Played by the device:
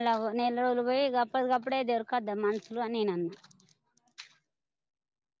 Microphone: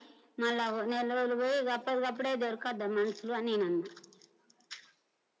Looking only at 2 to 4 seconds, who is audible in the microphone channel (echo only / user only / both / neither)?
echo only